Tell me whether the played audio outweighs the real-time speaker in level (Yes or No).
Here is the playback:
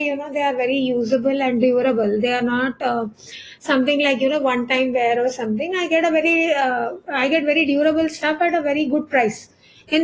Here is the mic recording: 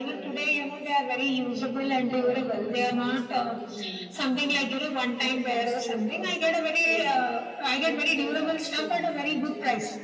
Yes